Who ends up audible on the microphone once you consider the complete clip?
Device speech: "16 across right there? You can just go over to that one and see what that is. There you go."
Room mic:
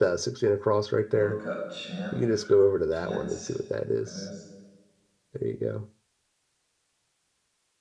both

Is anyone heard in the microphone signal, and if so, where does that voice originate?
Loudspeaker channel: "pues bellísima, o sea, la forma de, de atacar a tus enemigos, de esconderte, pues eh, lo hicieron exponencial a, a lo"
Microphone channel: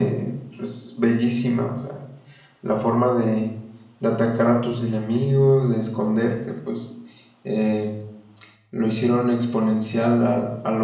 echo only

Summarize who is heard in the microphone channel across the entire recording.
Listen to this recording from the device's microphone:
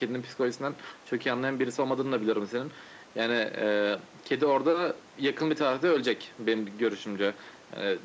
echo only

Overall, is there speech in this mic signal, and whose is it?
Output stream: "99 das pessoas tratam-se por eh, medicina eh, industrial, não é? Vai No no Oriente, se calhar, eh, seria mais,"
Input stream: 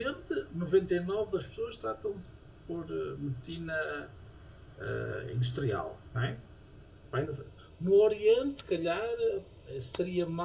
echo only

